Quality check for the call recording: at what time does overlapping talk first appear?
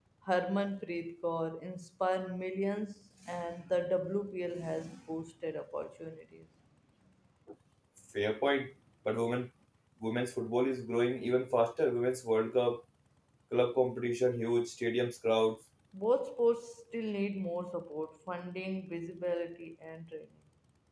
none

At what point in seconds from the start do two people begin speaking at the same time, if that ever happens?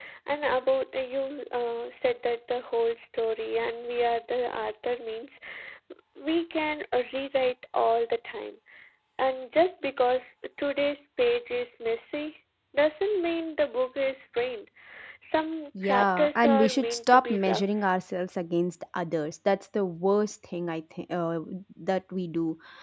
15.8 s

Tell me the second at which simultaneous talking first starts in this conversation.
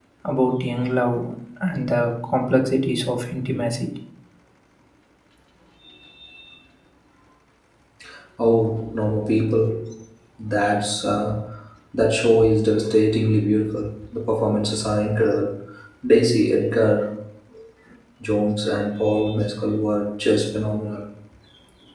none

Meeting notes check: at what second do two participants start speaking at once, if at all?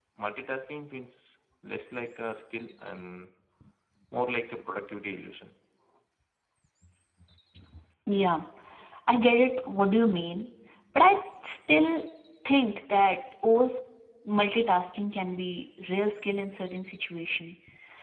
none

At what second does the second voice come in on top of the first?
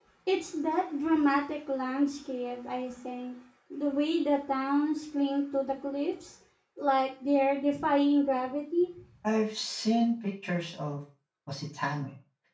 none

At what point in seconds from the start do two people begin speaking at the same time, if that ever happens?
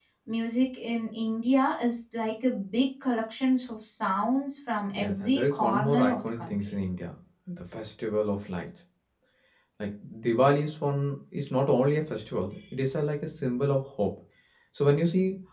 4.9 s

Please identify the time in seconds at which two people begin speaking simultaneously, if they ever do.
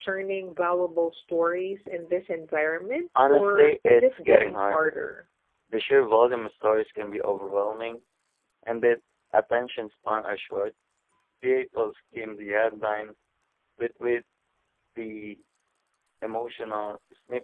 3.1 s

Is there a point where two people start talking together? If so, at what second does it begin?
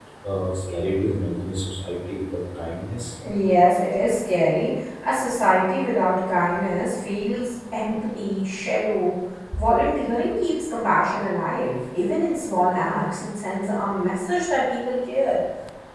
none

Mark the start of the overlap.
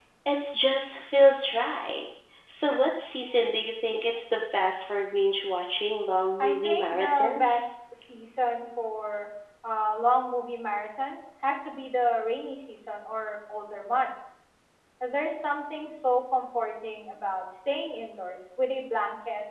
6.4 s

